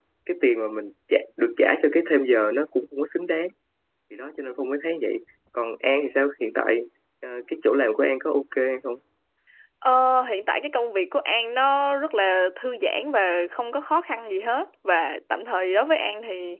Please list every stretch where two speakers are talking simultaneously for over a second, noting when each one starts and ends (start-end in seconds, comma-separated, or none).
none